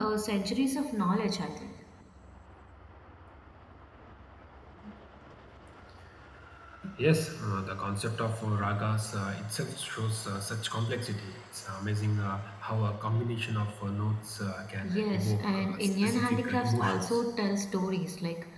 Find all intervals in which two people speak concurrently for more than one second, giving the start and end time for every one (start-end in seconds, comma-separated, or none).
14.9-17.2